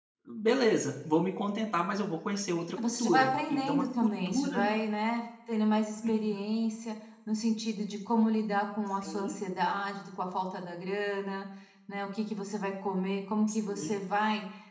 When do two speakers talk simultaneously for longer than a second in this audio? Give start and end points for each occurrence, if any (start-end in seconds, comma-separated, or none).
3.0-4.5